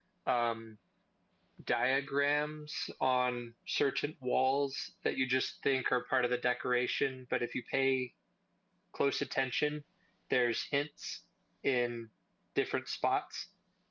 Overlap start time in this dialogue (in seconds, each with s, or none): none